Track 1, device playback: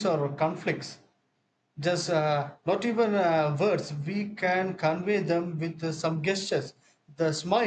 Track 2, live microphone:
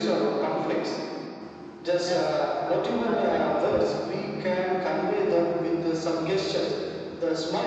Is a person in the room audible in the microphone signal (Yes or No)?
Yes